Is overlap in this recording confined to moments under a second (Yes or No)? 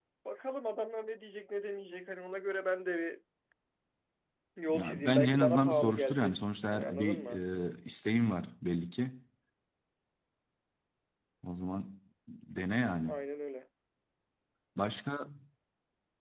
No